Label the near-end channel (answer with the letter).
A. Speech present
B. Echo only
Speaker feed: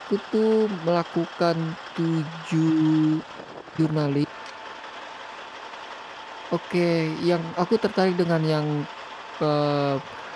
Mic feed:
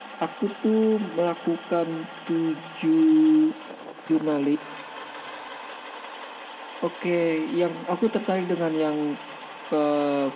B